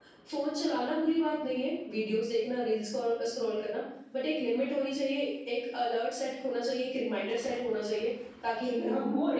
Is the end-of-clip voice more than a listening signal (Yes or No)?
Yes